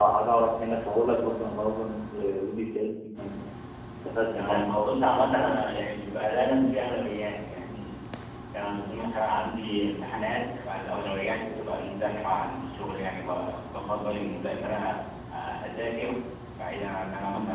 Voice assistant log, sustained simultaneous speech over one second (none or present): none